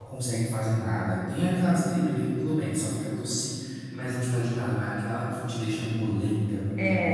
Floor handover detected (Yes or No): Yes